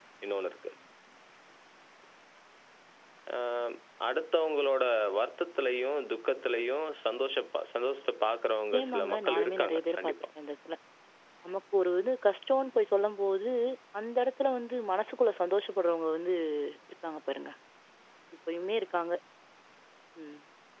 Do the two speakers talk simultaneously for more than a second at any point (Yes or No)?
Yes